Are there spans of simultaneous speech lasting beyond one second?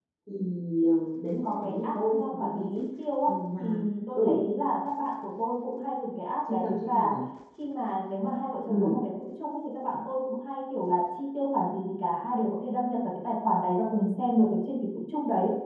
Yes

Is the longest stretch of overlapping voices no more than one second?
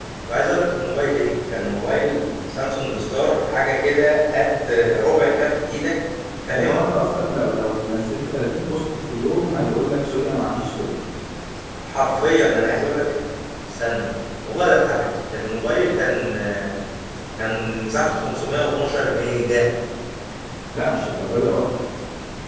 Yes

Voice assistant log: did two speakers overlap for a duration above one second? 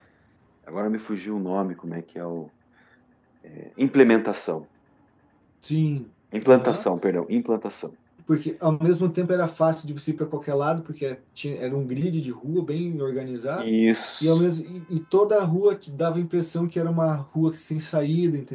No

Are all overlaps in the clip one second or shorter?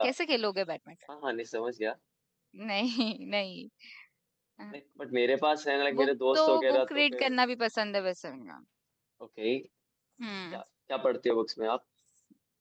No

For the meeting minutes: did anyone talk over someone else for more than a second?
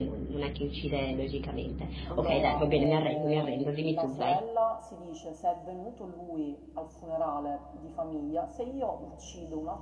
Yes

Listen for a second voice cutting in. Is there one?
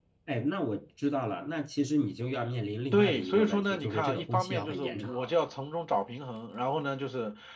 Yes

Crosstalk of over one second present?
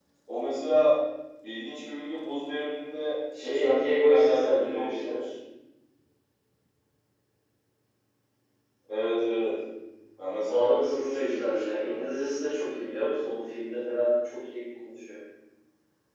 Yes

